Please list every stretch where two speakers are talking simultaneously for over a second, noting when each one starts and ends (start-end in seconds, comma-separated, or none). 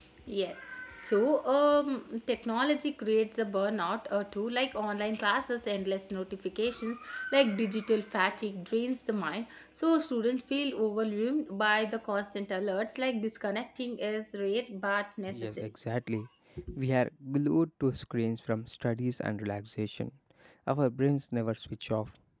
none